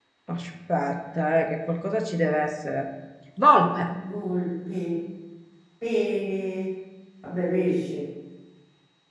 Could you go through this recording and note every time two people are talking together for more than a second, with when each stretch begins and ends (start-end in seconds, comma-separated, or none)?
none